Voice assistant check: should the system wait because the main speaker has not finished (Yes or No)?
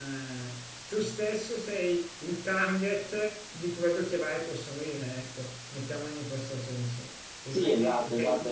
No